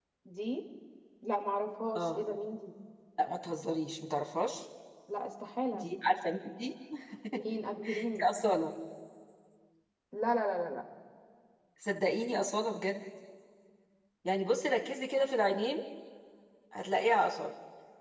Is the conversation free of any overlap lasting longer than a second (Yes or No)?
Yes